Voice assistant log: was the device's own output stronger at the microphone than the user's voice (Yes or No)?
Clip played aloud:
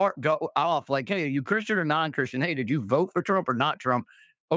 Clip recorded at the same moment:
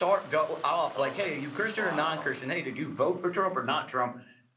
Yes